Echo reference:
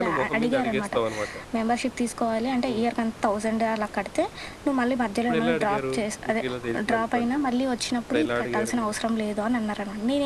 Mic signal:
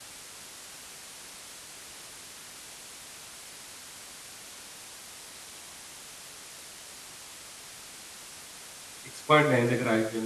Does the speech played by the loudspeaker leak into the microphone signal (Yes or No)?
No